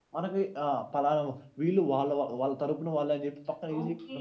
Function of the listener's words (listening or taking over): taking over